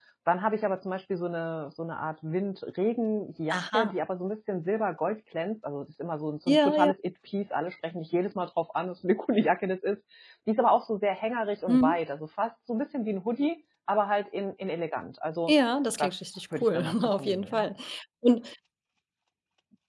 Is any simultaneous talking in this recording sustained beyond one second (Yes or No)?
Yes